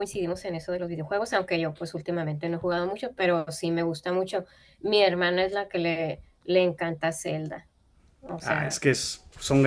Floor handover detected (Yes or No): Yes